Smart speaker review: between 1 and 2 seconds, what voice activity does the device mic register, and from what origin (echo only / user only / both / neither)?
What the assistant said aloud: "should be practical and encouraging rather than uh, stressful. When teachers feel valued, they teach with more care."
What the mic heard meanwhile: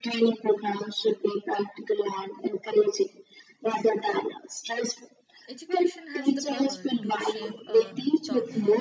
echo only